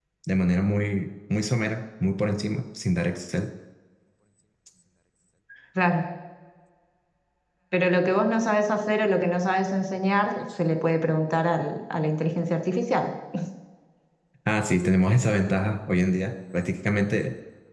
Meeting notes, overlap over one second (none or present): none